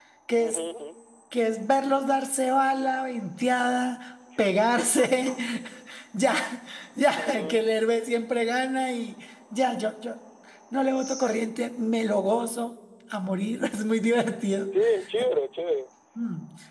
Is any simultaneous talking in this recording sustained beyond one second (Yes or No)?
No